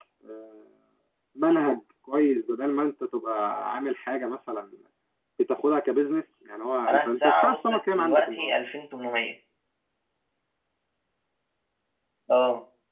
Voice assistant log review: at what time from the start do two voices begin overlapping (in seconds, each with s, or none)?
6.9 s